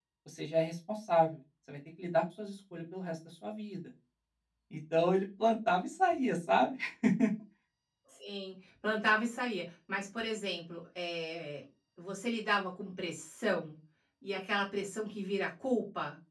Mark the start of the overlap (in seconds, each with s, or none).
none